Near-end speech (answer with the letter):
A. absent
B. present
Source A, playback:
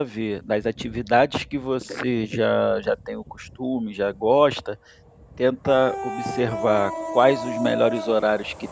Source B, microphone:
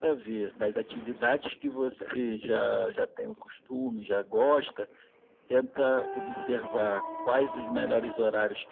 A